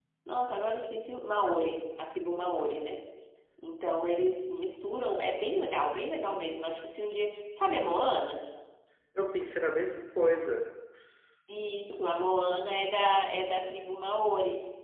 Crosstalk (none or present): none